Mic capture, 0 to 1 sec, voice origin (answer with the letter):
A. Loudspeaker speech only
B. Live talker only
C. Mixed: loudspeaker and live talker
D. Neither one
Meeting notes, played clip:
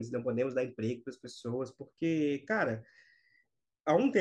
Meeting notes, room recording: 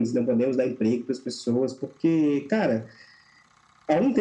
A